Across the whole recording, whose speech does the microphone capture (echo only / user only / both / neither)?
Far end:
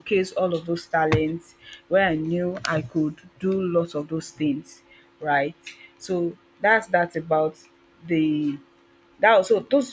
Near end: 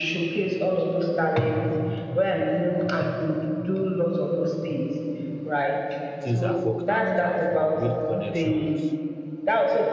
both